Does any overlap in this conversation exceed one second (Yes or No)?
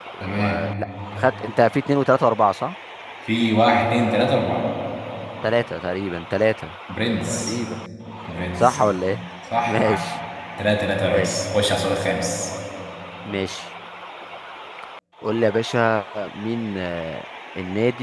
No